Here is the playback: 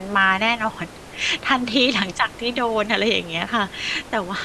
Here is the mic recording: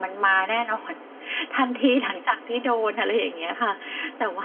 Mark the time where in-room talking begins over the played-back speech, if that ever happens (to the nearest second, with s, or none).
none